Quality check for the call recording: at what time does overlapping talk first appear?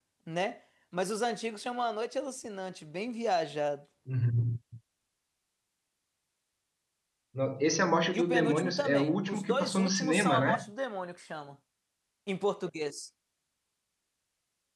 8.1 s

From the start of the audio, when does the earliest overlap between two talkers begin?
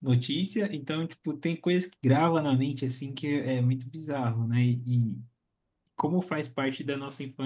none

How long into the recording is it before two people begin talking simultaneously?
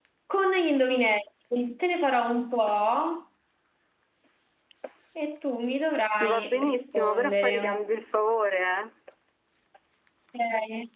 6.2 s

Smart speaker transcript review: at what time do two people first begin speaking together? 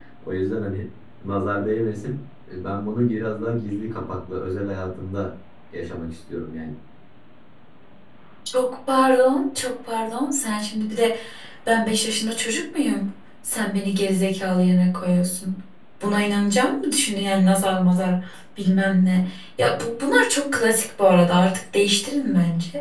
none

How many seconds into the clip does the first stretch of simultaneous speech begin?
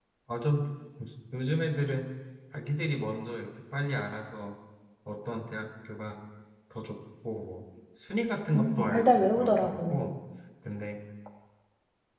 8.5 s

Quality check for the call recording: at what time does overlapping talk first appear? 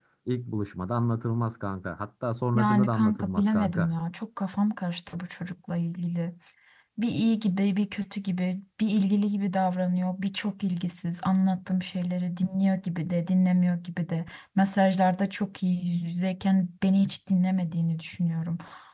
2.5 s

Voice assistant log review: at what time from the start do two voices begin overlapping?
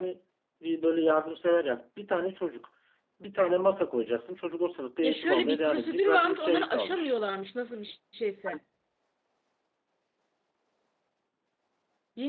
5.0 s

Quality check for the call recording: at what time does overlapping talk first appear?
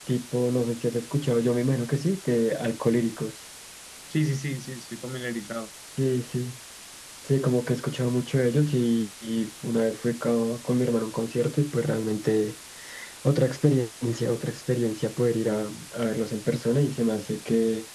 none

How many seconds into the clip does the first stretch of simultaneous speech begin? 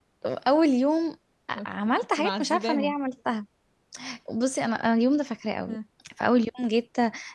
1.6 s

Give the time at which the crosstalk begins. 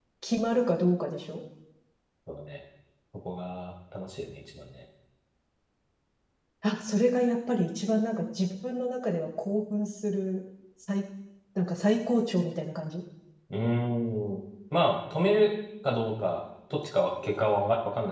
none

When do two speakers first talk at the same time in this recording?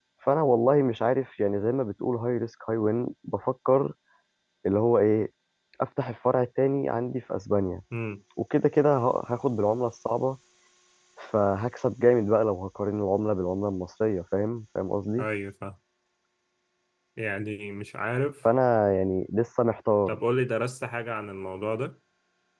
none

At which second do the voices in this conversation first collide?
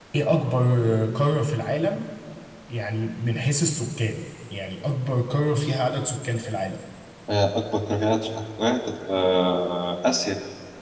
none

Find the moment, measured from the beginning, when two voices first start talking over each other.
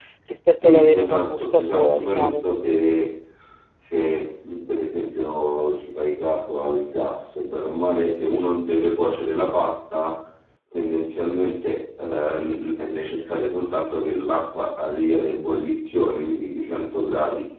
0.6 s

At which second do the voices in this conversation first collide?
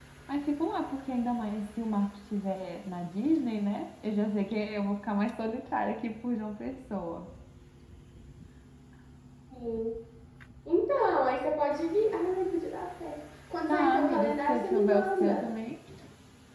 13.7 s

